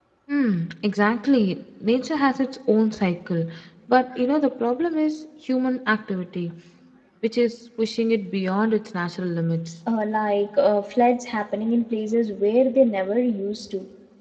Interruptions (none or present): none